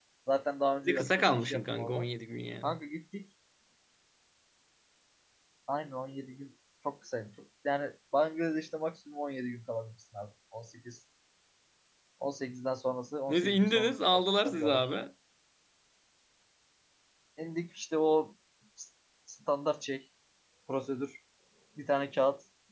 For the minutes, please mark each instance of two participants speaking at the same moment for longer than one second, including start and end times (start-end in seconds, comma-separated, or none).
0.8-2.1, 13.3-14.9